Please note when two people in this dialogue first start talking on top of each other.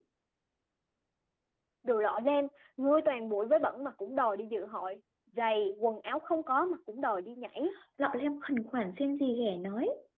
none

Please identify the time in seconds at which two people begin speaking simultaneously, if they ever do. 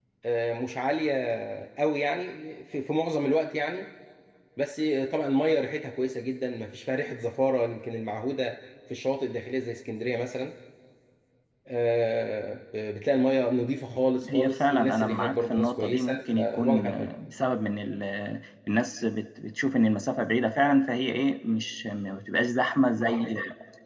14 s

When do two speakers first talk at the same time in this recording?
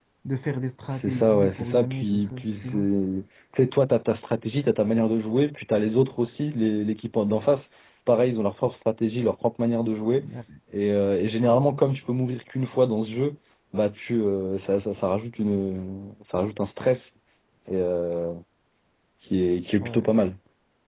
1 s

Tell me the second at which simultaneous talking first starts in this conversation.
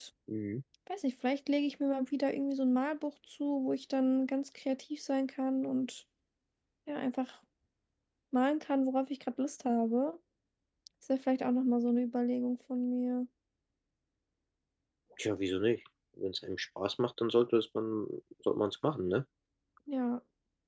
none

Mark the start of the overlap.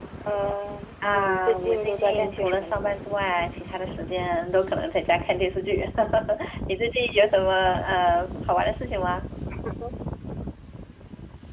1 s

